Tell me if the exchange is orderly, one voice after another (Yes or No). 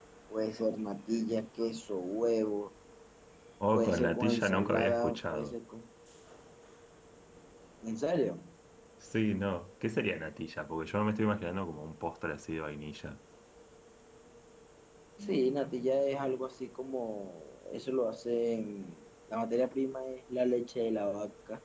No